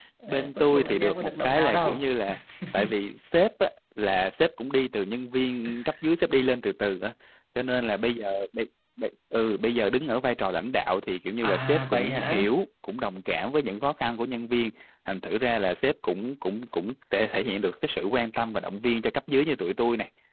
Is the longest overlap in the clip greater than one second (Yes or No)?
Yes